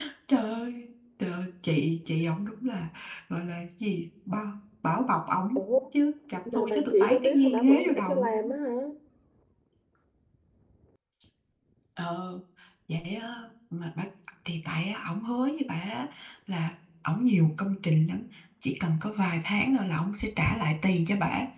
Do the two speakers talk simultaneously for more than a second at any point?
Yes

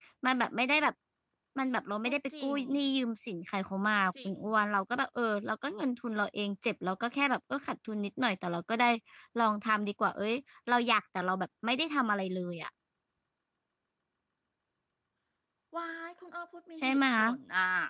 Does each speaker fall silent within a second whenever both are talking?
Yes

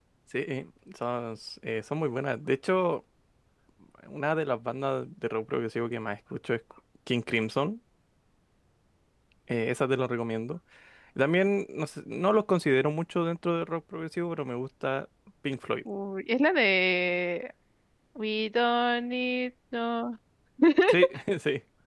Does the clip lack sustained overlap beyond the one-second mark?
Yes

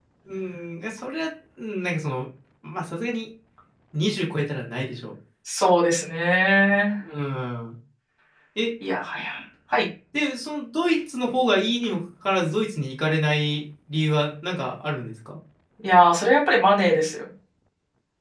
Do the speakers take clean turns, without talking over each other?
Yes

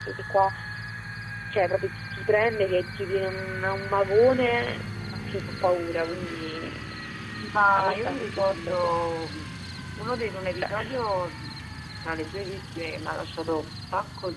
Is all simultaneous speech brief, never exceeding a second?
No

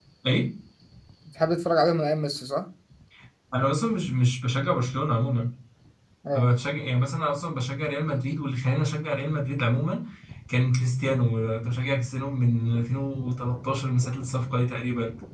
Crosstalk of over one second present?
No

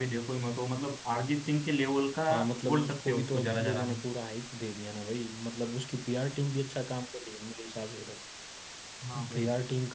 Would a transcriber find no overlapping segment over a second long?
No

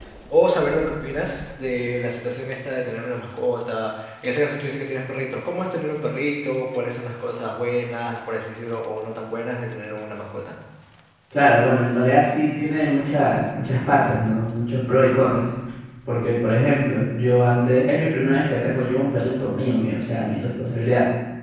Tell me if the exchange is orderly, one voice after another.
Yes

